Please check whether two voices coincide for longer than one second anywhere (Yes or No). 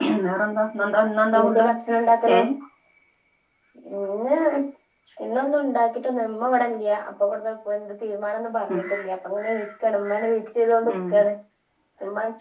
No